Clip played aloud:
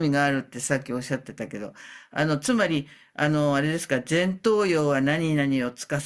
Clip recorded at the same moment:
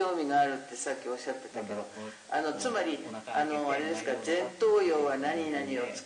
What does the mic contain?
both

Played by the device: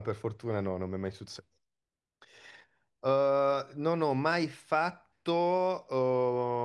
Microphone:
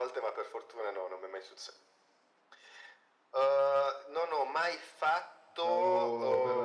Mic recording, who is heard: both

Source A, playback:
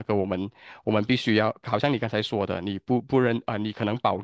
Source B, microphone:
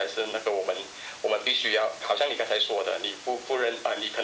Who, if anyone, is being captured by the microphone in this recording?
echo only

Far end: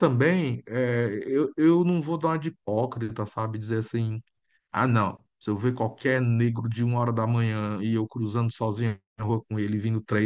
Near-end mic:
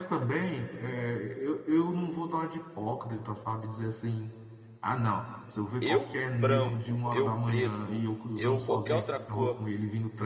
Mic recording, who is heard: both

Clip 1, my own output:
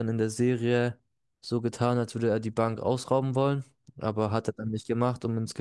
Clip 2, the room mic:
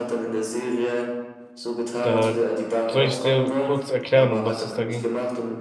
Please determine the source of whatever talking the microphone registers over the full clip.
both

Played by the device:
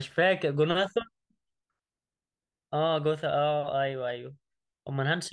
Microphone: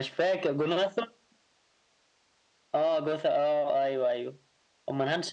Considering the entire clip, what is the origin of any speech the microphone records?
echo only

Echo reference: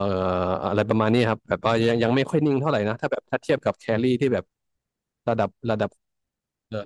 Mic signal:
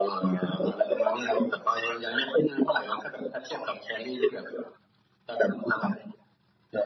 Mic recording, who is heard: echo only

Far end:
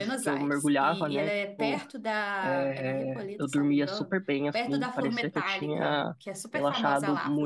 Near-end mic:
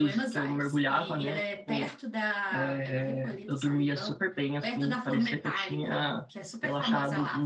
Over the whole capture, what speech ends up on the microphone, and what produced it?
echo only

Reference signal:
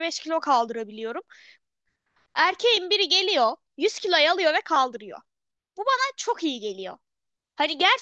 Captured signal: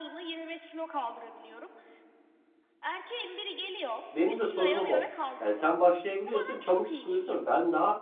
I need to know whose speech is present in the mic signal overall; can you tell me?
both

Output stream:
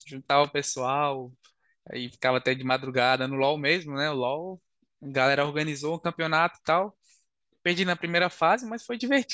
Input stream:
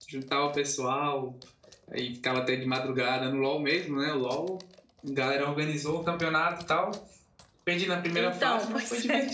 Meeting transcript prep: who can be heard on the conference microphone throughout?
both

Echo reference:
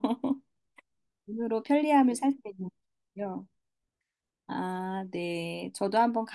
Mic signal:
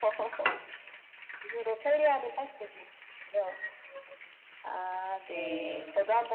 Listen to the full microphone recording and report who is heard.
both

